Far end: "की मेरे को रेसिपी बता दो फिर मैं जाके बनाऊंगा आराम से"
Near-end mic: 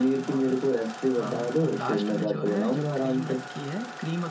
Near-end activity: present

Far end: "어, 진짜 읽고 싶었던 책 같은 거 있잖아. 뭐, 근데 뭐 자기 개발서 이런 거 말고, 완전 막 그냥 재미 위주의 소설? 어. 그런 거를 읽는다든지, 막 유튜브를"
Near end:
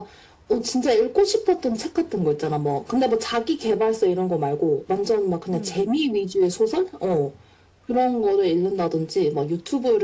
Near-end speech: present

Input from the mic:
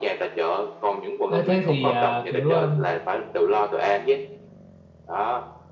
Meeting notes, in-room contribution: present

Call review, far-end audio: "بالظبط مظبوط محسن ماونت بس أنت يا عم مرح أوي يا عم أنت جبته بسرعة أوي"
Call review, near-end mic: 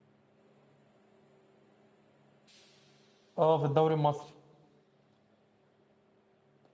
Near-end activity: present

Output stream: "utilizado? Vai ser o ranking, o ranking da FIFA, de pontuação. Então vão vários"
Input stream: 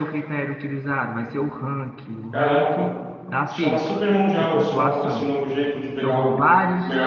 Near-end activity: present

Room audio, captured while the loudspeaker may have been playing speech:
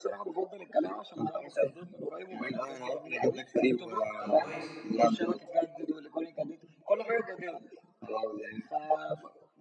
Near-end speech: present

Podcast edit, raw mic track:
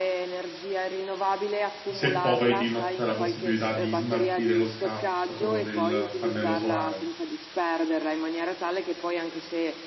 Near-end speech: present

